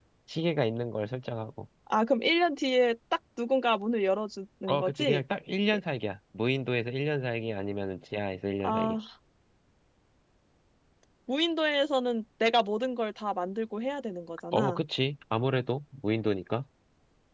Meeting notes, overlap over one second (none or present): none